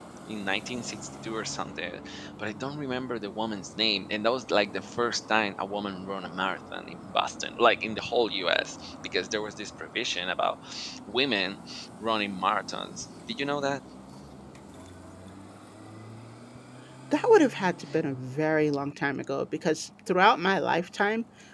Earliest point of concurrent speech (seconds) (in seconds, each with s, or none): none